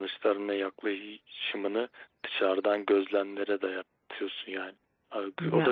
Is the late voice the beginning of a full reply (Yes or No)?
Yes